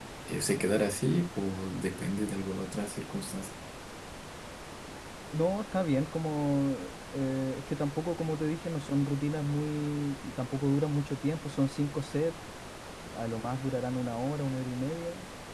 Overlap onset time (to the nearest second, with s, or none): none